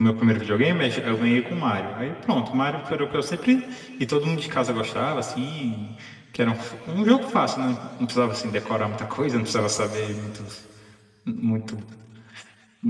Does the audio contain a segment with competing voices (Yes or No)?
No